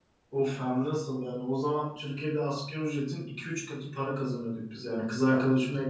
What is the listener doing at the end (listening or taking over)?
listening